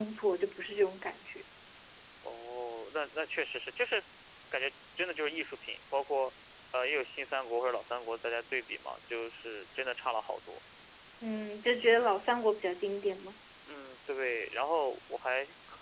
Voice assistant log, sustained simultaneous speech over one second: none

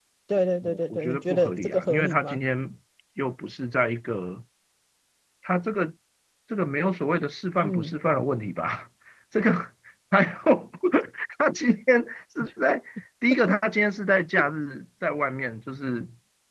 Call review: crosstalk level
present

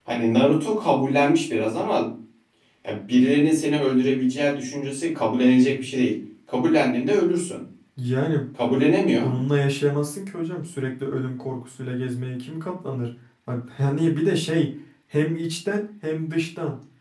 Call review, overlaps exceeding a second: none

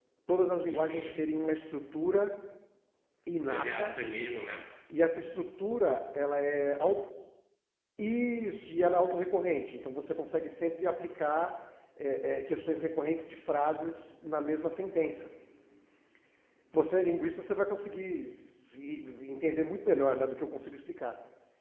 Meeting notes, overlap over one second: none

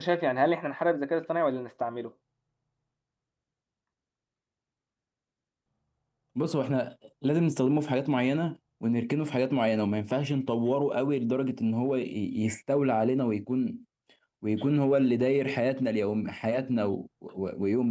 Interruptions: none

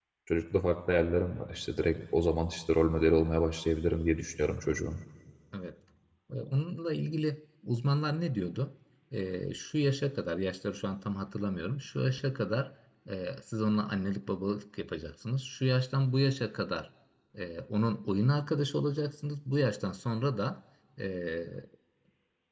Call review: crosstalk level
none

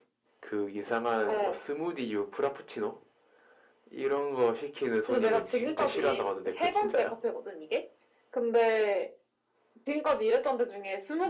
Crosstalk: present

